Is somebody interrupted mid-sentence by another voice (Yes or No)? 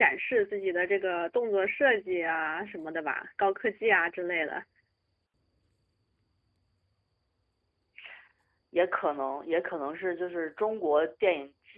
No